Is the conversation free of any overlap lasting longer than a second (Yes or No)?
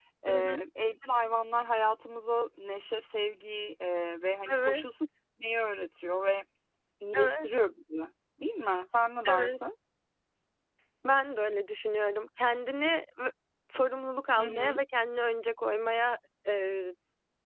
Yes